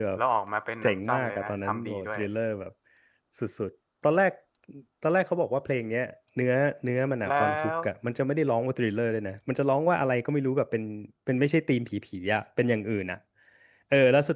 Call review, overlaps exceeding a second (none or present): present